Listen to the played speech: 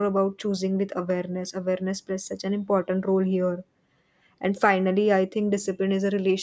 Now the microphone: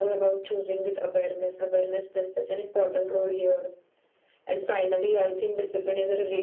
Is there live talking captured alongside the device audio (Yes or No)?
No